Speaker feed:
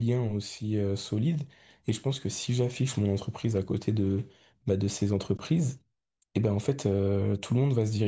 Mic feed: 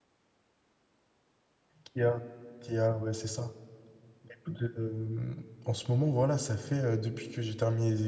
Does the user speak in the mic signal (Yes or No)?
Yes